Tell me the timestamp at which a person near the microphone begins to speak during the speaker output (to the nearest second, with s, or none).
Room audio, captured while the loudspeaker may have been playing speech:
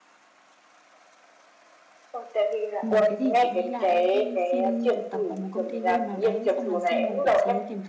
3 s